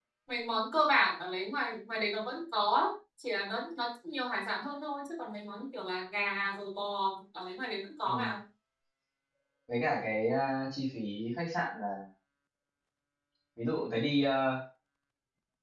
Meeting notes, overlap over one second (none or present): none